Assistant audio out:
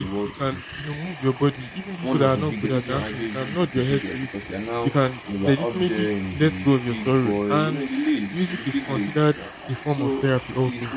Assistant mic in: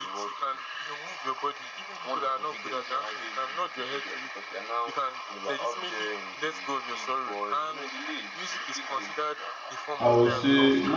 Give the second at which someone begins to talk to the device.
10.0 s

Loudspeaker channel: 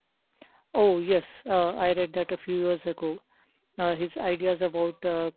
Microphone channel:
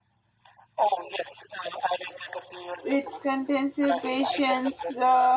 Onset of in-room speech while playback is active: 2.8 s

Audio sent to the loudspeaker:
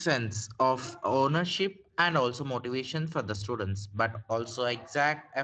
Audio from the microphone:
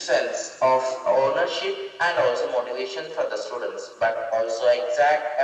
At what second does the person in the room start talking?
none

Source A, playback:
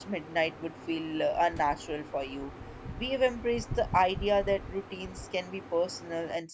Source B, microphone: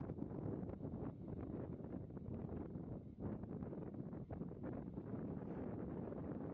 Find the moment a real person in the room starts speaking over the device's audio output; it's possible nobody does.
none

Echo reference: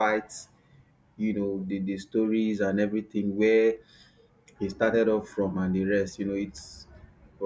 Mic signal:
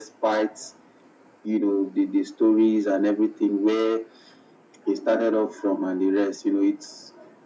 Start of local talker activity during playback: none

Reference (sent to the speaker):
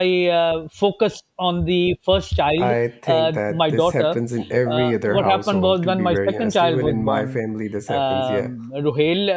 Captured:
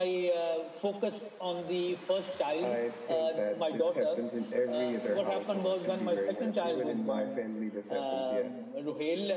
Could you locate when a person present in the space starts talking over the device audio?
none

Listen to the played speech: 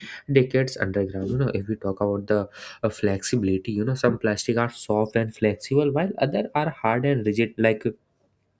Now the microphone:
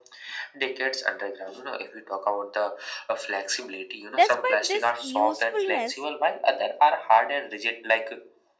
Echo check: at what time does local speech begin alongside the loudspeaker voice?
4.1 s

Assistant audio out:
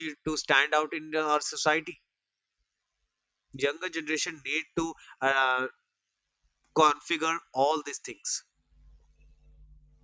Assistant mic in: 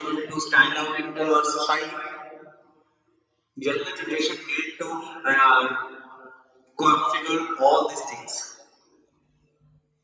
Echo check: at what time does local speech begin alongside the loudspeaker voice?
none

